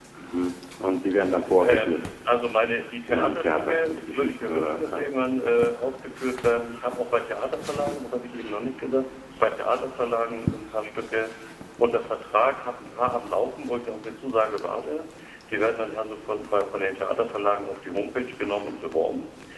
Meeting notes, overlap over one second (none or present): present